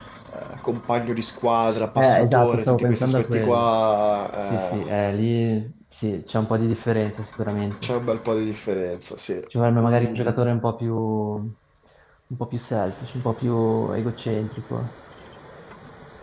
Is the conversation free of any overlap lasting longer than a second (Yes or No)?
No